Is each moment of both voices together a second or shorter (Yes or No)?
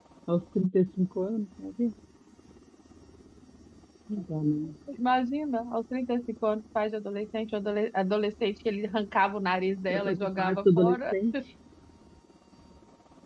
No